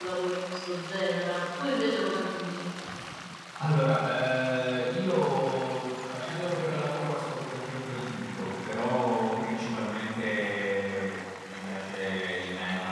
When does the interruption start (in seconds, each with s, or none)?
none